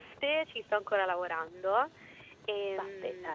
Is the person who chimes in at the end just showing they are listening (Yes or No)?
Yes